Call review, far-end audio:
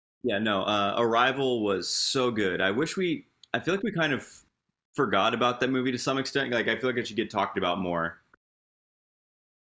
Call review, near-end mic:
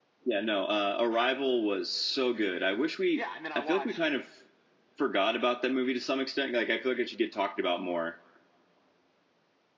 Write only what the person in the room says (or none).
yeah. And then I watched